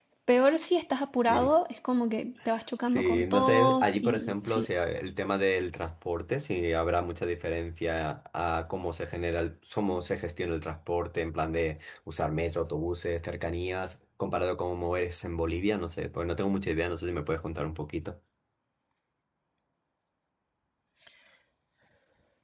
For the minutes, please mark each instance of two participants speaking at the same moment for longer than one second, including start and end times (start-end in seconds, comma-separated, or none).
2.9-4.7